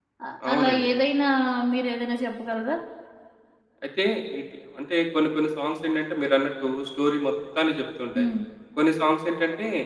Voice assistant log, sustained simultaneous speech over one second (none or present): none